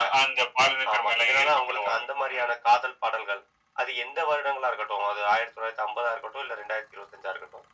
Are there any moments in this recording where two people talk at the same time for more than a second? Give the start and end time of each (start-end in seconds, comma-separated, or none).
0.9-2.5